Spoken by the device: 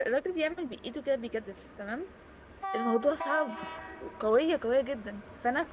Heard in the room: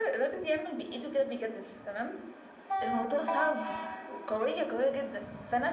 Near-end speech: none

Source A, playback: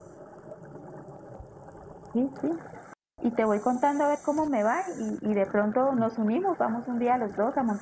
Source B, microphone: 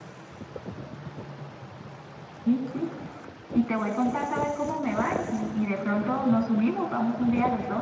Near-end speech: none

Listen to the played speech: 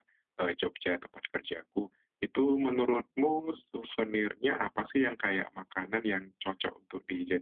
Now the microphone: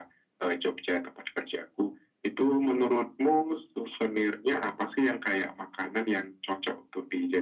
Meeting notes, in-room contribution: none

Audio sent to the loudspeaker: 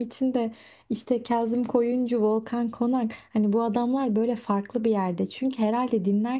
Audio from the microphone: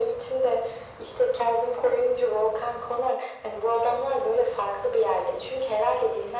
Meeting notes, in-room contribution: none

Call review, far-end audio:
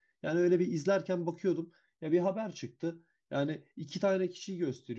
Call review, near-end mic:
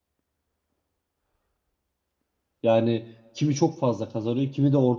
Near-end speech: present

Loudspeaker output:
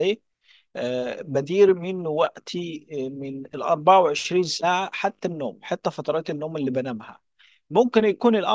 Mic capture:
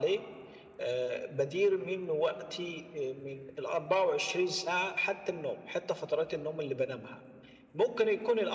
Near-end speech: none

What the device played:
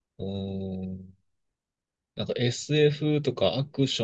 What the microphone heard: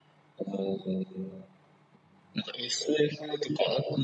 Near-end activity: none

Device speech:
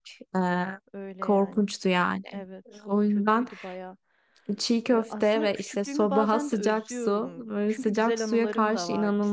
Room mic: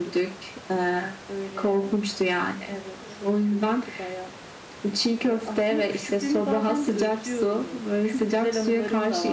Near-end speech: none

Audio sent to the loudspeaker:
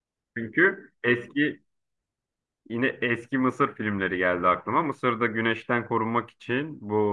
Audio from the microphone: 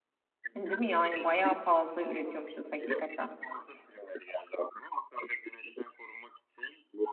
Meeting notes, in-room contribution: present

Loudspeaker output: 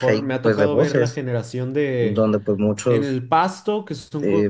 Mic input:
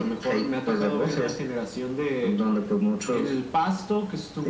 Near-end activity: none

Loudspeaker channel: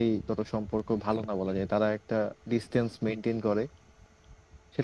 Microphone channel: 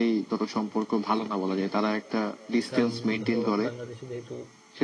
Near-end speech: present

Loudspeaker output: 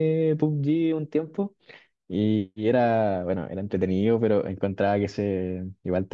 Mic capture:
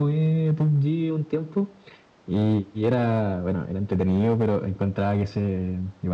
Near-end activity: none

